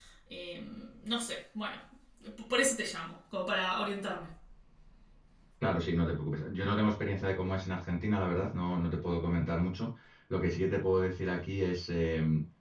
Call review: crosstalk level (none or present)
none